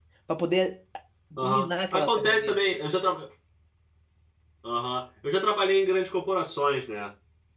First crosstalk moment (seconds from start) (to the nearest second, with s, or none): 1 s